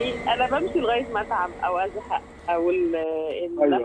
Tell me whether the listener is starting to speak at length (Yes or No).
No